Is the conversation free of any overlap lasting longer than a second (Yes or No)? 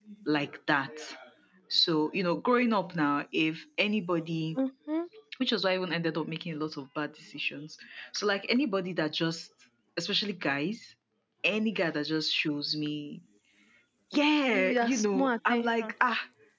No